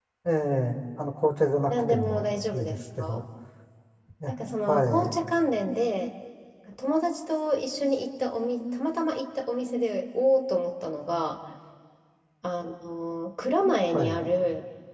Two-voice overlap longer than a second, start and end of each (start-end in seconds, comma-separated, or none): 1.7-3.2